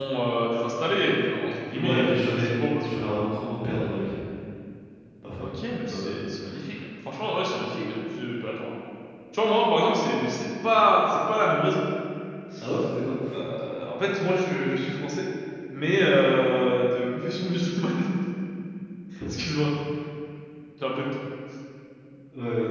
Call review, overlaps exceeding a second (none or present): present